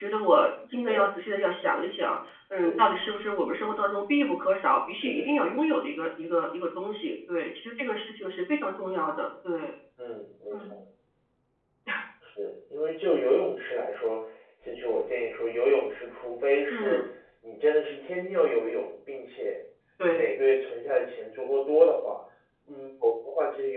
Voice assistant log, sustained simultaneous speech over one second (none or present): none